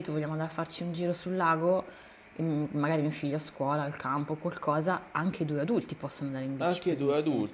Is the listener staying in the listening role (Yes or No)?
No